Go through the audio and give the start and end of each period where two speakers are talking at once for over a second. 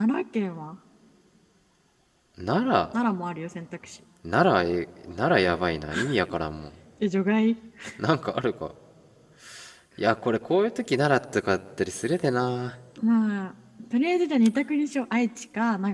none

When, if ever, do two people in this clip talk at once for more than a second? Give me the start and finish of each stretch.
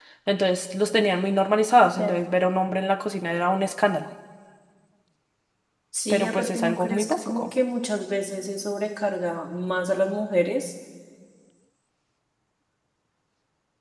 6.1-7.5

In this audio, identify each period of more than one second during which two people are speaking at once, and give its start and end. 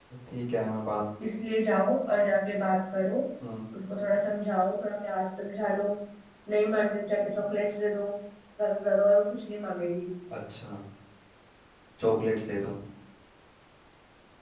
none

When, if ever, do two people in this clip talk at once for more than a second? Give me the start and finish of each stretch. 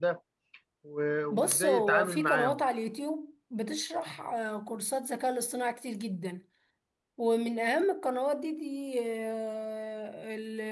1.3-2.6

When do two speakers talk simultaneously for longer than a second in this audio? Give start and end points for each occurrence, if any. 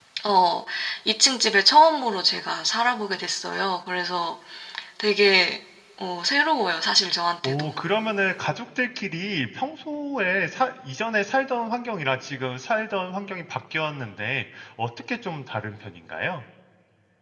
none

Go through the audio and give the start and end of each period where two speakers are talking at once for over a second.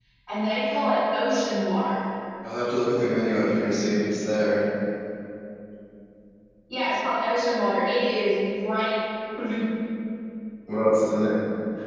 none

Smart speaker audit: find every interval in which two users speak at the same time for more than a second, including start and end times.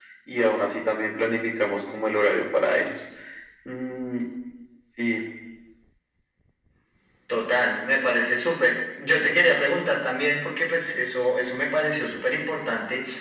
none

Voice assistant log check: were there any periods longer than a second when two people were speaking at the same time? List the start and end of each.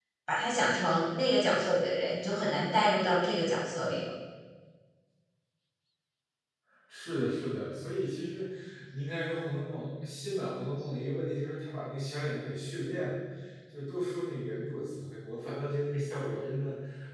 none

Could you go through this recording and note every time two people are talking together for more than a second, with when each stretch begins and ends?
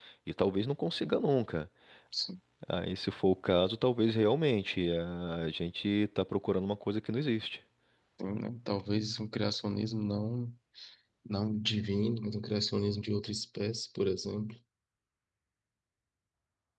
none

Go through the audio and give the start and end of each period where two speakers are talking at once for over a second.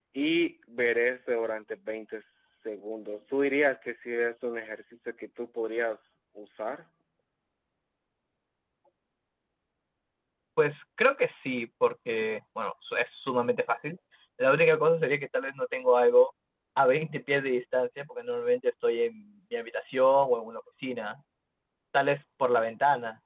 none

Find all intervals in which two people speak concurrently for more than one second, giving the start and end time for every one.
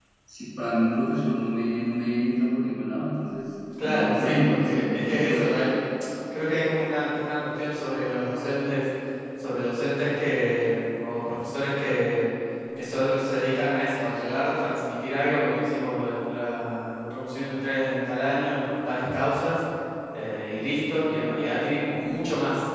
3.8-5.5

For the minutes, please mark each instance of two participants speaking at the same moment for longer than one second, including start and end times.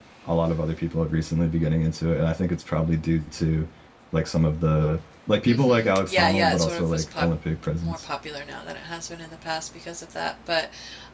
5.5-7.2

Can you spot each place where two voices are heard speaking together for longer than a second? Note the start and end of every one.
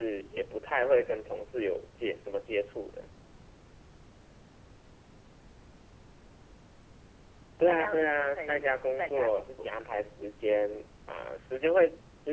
7.6-9.7

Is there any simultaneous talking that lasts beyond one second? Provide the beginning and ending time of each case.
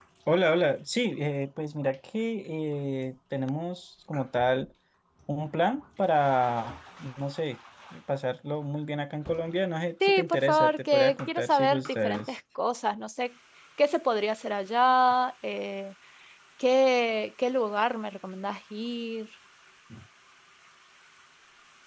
10.0-12.4

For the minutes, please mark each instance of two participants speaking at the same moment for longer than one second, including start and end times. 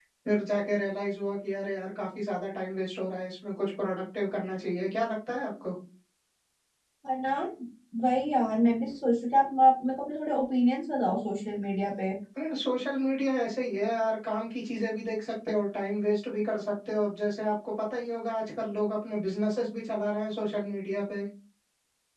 none

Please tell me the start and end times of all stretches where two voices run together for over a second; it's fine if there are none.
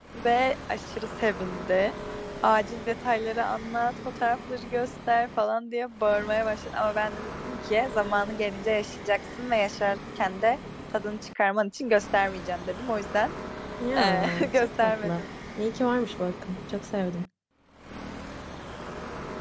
14.0-15.2

